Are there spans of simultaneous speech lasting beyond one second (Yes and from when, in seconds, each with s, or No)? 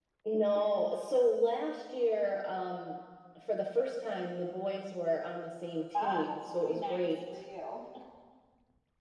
Yes, from 5.9 s